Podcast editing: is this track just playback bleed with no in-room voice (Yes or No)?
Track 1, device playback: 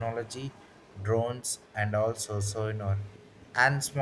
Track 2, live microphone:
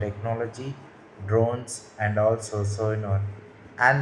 Yes